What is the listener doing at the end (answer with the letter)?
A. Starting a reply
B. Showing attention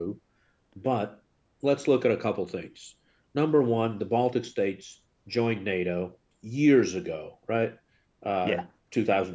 B